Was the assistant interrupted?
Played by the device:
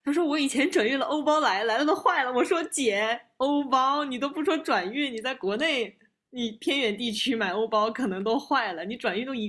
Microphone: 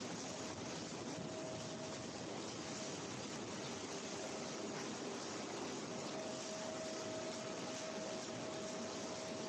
No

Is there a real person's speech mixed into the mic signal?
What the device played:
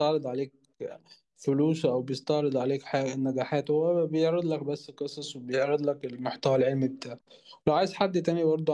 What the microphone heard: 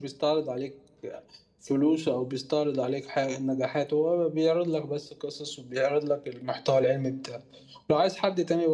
No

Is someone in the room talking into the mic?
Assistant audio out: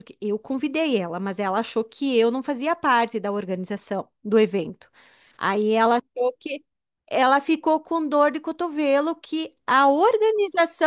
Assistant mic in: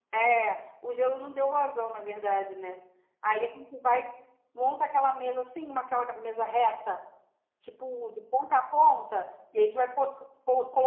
Yes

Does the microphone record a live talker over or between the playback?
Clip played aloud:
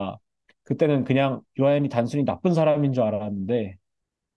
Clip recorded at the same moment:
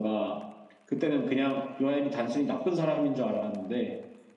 No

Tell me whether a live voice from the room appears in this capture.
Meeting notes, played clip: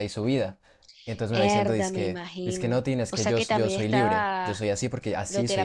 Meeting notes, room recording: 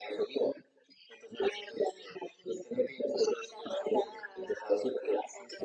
No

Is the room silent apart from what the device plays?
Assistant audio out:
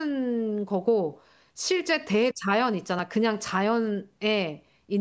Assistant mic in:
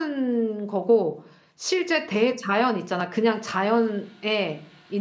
Yes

